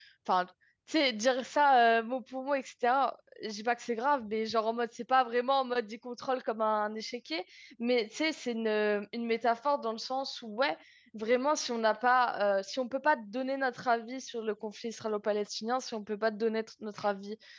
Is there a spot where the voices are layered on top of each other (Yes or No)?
No